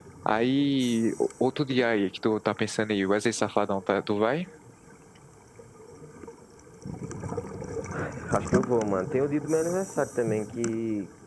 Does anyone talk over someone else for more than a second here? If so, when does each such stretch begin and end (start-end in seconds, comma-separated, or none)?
none